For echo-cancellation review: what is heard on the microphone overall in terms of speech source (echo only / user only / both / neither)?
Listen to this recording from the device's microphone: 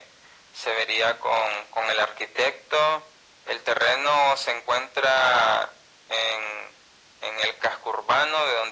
echo only